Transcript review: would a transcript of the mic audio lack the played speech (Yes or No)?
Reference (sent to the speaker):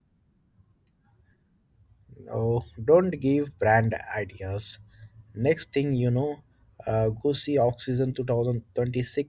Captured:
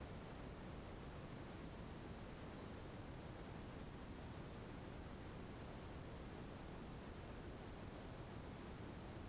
Yes